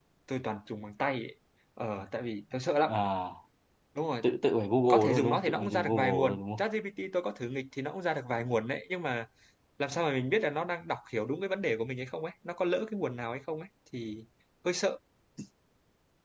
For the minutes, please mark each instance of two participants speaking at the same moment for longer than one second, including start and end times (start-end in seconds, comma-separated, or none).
4.9-6.6